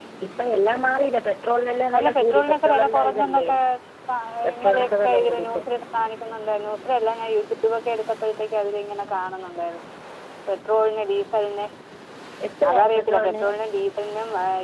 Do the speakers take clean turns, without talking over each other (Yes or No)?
No